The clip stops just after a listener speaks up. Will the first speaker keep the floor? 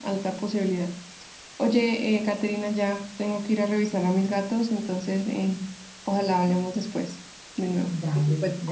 No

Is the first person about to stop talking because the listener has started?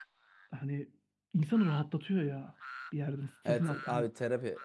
Yes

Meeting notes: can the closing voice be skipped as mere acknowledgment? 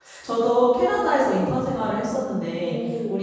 Yes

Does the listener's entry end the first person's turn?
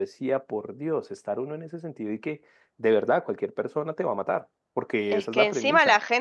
Yes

